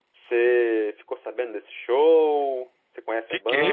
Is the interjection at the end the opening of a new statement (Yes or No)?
Yes